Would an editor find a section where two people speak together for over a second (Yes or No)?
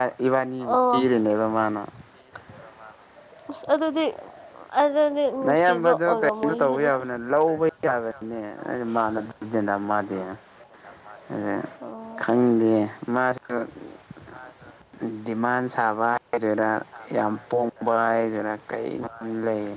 Yes